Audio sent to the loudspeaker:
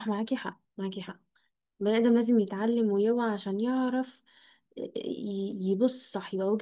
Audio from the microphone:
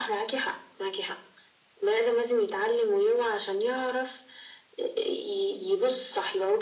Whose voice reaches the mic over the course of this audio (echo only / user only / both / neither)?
echo only